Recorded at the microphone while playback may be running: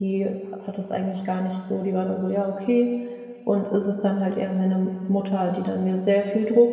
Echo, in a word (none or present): none